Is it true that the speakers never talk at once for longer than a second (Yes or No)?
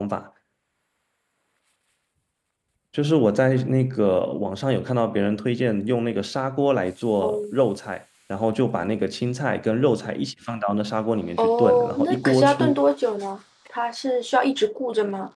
No